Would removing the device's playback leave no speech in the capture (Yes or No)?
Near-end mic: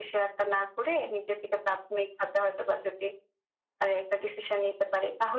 Yes